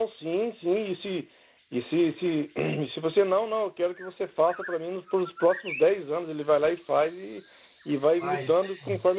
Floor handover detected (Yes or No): No